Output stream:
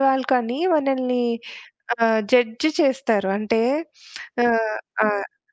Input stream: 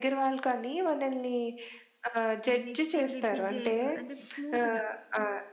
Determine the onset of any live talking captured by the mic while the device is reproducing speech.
2 s

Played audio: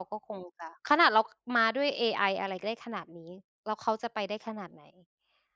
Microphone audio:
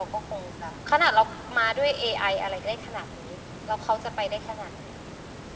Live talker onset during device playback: none

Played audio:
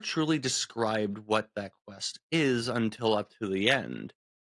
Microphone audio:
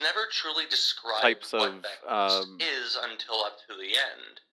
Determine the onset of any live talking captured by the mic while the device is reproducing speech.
1 s

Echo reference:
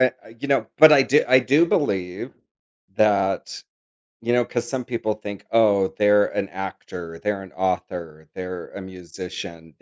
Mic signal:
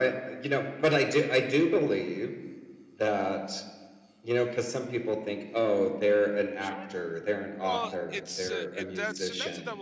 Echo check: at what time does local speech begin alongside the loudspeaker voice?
7 s

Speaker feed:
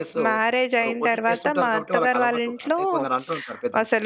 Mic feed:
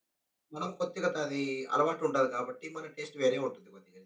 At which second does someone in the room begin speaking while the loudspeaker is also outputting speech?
1 s

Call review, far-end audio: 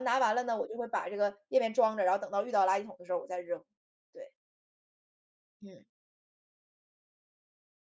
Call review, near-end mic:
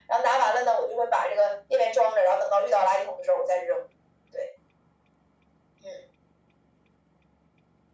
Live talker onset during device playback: none

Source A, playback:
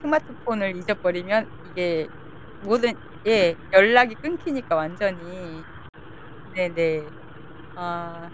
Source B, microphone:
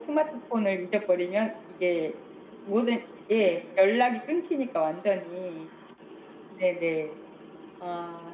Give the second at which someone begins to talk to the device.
none

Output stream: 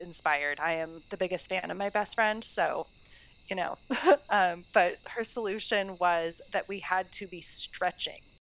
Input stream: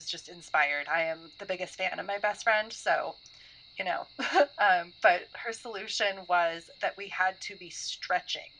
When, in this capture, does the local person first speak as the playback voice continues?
none

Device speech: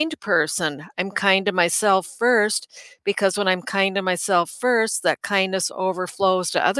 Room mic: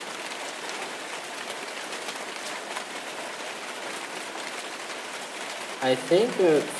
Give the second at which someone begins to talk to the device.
6 s

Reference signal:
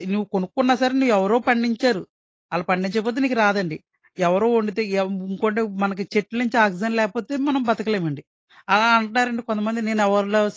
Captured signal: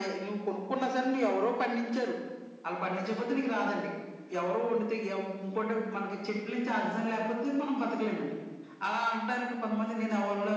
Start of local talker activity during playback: none

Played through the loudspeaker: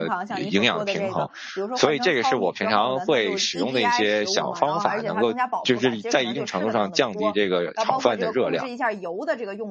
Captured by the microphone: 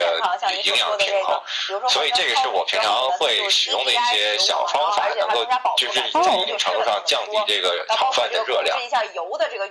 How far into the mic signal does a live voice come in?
6 s

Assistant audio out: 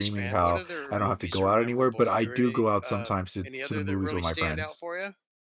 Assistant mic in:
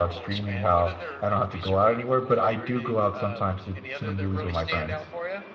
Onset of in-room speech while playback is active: none

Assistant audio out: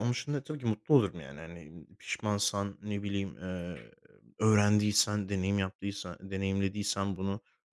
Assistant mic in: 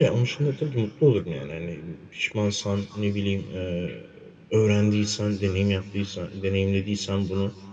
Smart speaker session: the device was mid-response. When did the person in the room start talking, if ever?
none

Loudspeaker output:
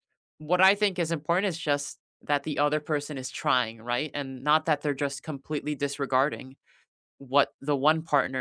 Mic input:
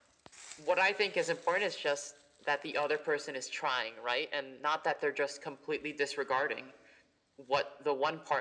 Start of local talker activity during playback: none

